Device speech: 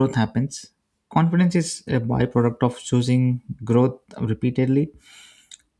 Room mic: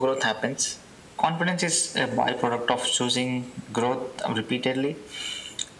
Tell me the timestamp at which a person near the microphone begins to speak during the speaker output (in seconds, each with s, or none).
none